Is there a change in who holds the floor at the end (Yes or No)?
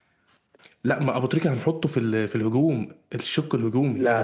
Yes